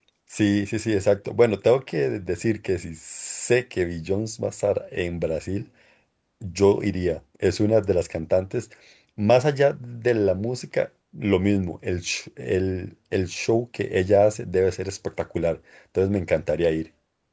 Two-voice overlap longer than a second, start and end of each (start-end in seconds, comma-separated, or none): none